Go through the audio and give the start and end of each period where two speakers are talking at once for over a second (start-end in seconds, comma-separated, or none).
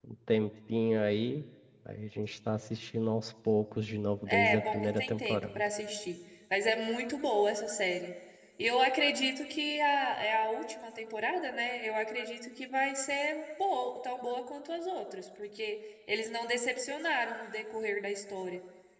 4.3-5.6